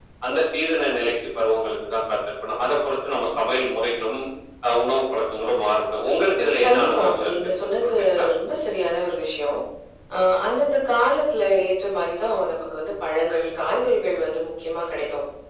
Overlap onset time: 6.4 s

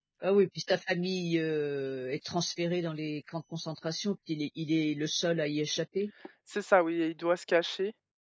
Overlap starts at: none

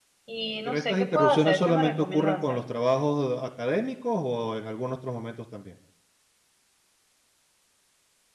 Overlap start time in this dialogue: 0.7 s

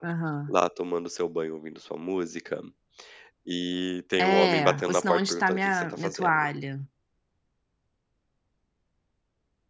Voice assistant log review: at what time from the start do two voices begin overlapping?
4.2 s

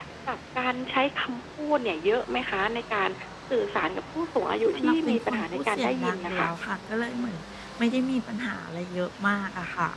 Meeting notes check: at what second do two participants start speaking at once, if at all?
4.7 s

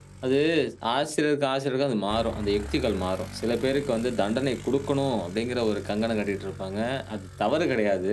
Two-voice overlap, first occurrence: none

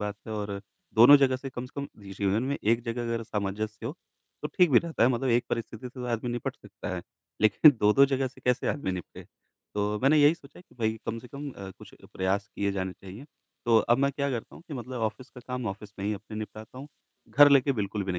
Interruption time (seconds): none

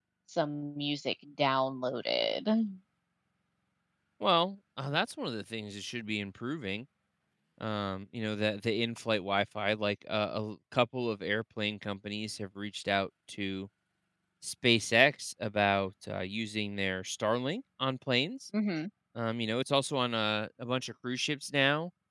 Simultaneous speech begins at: none

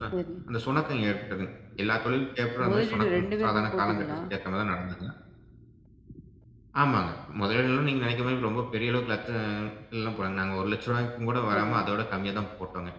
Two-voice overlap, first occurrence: 2.6 s

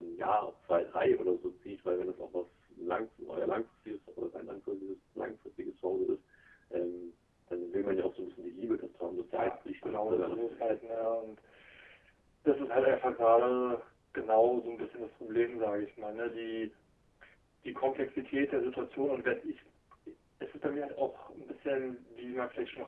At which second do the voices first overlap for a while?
9.3 s

